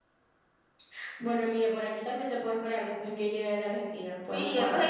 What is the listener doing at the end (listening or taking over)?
taking over